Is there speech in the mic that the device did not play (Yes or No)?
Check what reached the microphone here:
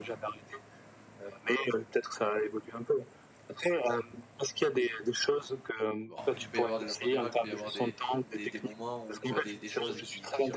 Yes